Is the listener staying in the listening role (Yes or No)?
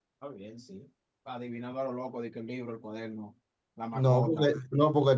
No